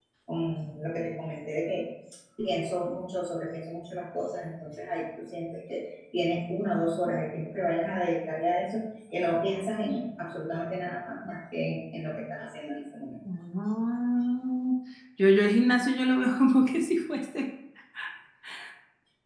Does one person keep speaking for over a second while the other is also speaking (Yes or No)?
No